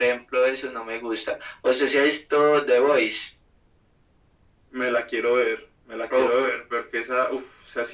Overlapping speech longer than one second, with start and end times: none

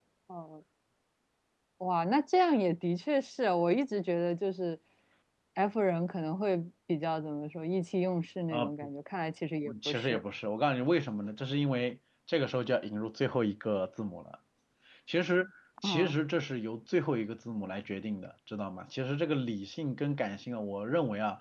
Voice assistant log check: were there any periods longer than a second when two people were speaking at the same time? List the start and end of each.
none

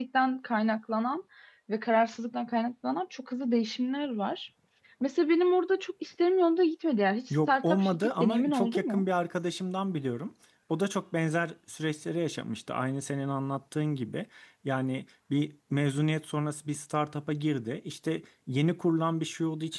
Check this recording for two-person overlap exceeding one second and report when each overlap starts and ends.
7.3-9.0

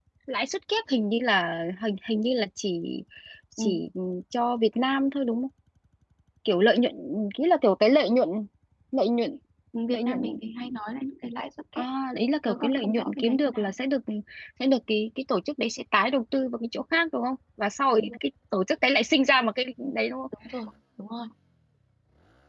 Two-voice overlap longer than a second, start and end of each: 12.5-13.7

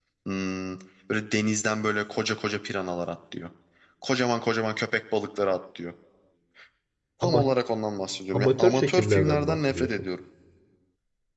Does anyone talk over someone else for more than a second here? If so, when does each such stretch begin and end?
8.3-9.9

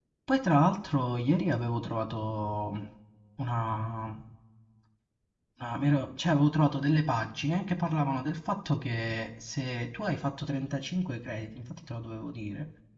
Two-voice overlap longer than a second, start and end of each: none

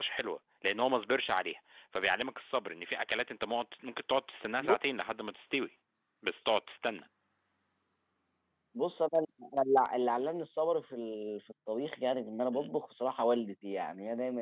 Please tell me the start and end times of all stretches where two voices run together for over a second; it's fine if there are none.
none

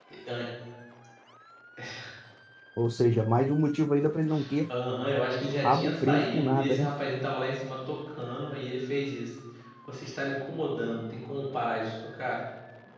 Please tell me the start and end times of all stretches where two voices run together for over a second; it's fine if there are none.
5.6-6.9

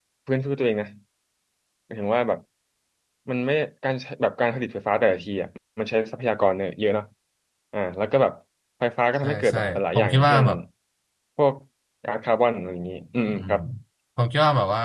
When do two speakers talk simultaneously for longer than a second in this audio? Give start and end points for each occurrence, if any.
9.2-10.4

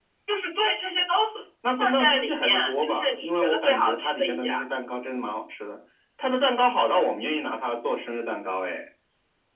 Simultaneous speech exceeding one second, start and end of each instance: 1.8-4.5

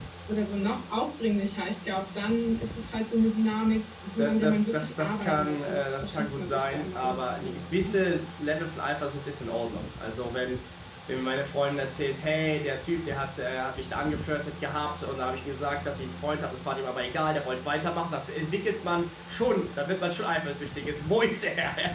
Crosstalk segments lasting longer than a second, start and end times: 4.2-7.9

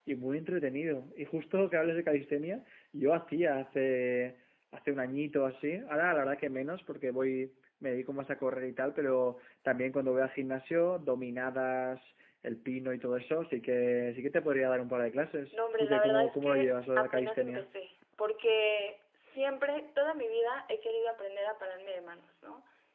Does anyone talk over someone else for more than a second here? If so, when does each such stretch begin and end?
15.5-17.6

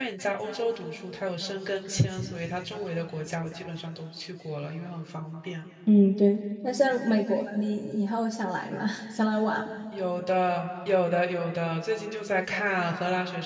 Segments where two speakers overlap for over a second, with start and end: none

